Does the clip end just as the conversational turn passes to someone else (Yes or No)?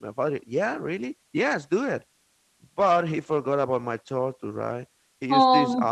No